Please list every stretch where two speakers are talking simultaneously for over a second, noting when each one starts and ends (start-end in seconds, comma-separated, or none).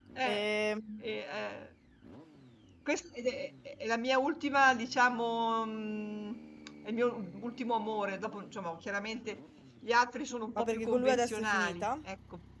10.6-11.9